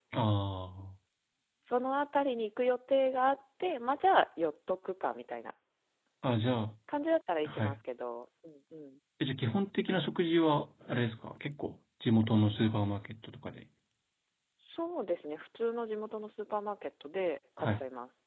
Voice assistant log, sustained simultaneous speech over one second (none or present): none